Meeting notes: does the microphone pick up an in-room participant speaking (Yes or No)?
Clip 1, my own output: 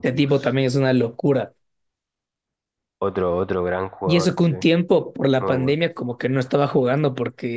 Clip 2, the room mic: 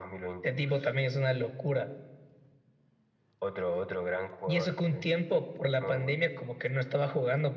No